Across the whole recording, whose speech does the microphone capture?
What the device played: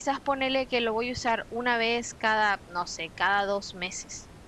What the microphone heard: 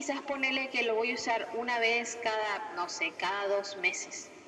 echo only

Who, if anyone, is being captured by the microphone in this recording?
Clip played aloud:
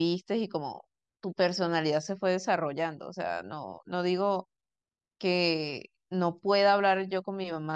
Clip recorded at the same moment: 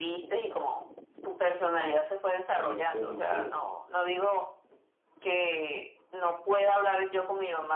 both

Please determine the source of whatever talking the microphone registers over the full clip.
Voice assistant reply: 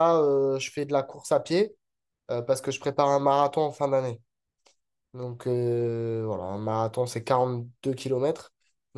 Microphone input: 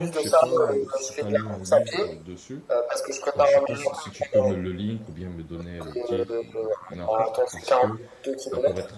both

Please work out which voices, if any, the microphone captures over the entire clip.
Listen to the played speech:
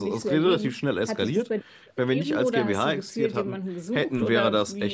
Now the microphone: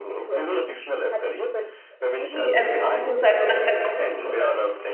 both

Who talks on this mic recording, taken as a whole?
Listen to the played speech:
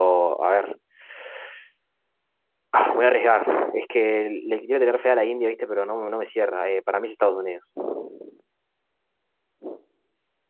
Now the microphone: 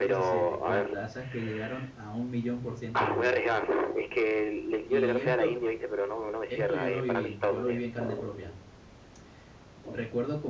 both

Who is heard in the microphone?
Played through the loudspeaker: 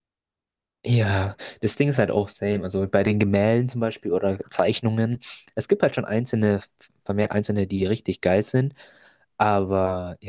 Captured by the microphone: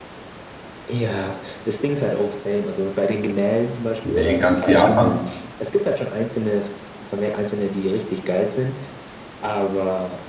both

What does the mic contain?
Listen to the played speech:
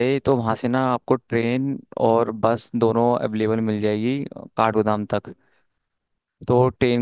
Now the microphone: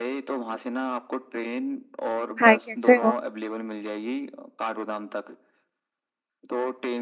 both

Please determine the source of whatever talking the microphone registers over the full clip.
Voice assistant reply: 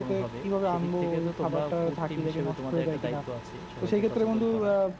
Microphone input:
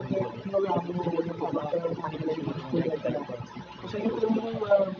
echo only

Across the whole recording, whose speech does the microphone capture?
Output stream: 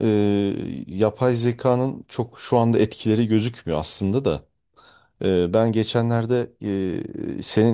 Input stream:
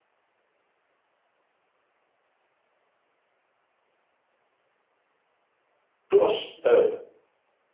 user only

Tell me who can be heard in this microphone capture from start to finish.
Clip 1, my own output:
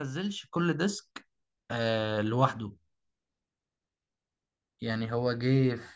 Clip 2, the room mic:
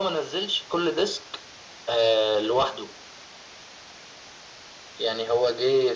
echo only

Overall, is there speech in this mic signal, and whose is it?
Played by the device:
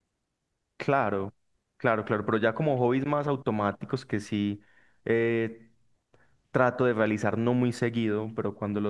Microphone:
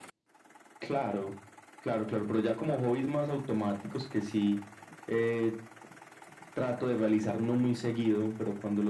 echo only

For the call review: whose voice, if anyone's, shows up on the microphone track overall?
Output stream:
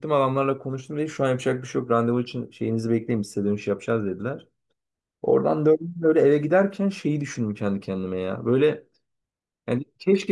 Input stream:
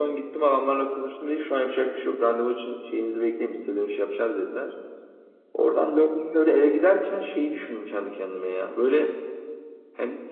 echo only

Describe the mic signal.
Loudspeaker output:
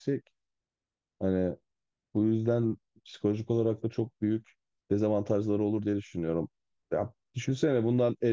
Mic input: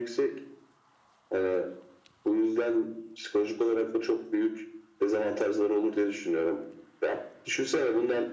echo only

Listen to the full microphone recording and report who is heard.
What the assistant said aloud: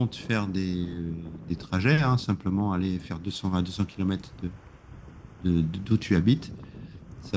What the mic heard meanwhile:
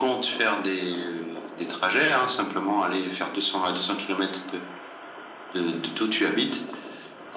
echo only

